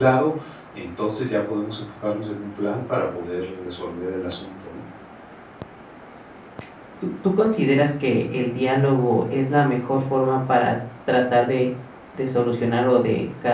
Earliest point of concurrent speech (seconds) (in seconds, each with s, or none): none